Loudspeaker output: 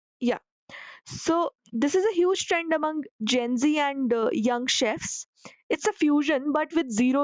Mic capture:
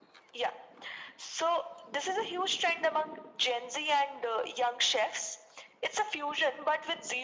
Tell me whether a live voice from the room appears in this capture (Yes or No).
No